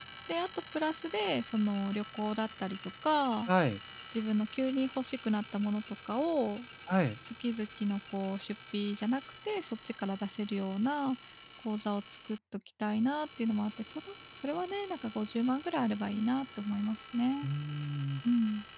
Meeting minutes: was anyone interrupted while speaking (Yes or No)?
No